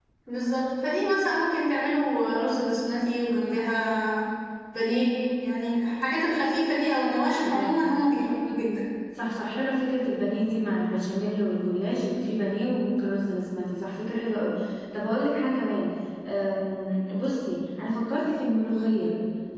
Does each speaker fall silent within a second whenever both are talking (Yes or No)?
Yes